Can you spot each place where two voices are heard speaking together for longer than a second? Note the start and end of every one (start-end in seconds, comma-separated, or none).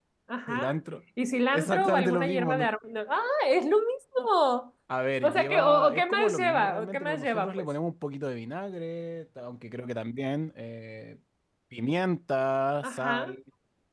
1.5-2.7, 5.2-7.7